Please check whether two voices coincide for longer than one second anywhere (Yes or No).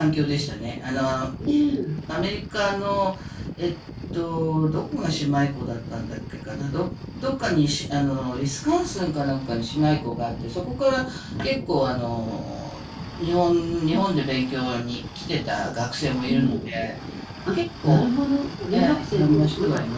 Yes